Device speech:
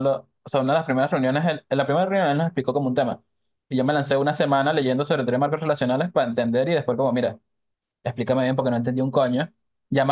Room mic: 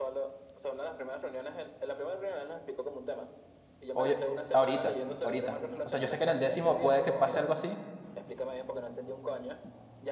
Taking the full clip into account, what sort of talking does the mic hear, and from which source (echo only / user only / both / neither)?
both